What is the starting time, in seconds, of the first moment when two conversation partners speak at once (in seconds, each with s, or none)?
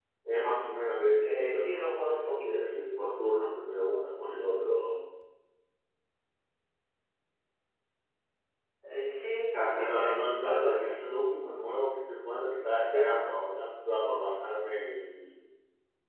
1.2 s